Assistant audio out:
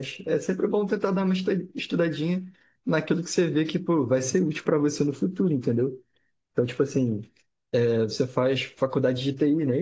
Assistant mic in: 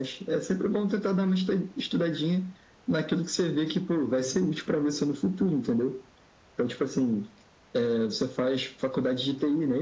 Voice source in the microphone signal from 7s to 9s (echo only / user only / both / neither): echo only